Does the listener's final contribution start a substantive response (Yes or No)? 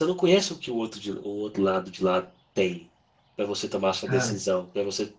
No